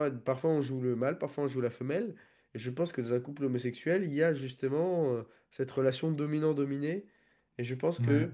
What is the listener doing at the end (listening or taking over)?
listening